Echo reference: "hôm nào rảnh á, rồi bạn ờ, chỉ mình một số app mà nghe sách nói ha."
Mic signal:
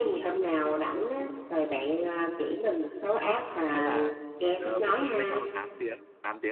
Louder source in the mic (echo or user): echo